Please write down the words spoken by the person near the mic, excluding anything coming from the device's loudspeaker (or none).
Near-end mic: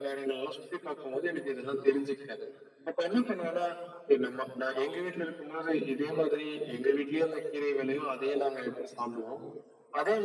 none